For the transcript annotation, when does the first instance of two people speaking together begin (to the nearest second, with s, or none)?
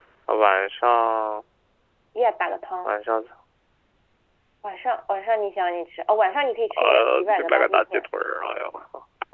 7 s